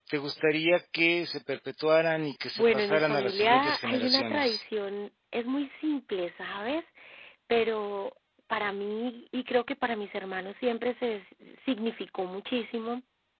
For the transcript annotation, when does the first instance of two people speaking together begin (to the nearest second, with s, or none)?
3 s